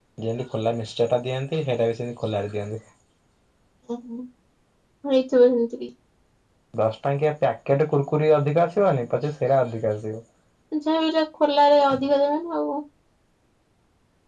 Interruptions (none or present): none